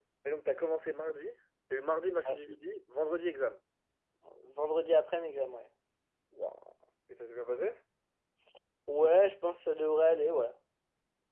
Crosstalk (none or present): none